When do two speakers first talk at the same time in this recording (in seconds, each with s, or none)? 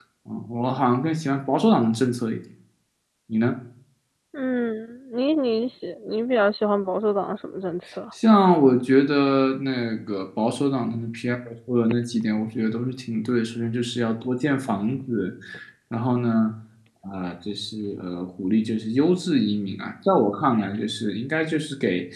none